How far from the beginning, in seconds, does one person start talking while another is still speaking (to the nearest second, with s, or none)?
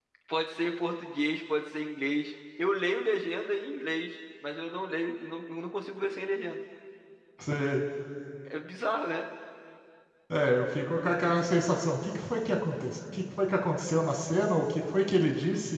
none